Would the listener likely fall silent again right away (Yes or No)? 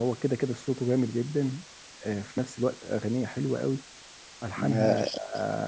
Yes